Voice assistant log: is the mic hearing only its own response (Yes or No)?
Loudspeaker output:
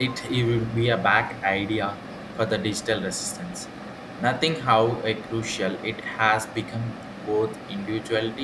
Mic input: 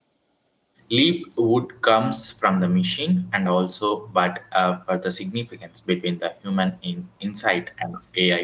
No